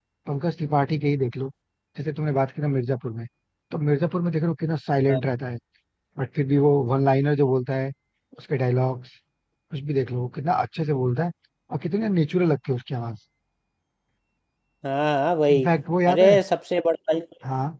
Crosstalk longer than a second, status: none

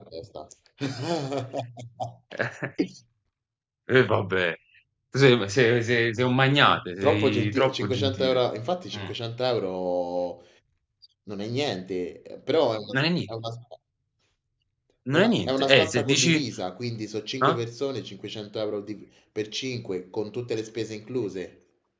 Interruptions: present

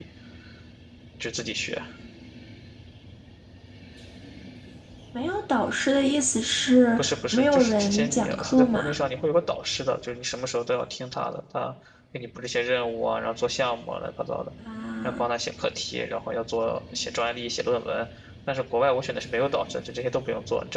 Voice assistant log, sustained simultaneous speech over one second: present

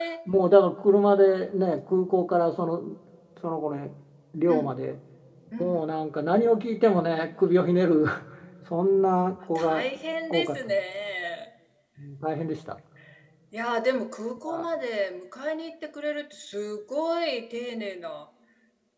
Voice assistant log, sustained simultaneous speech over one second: none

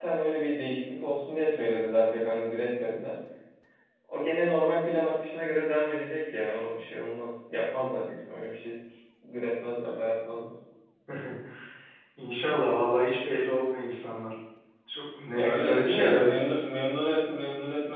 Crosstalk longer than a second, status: present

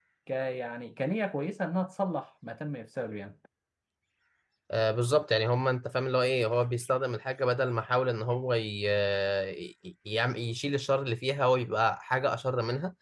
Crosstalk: none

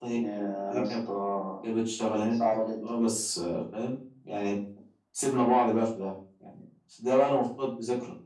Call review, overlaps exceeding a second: none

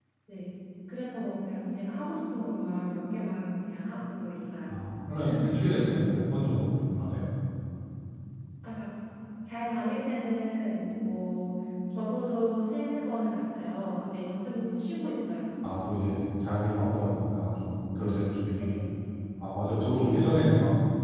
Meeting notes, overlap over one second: none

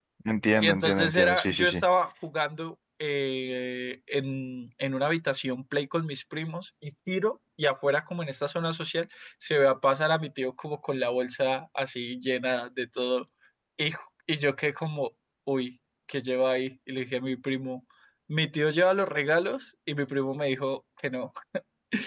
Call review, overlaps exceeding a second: present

